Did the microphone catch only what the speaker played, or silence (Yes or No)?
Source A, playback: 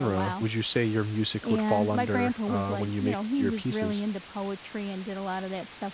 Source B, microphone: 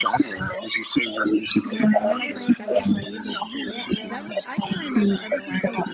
No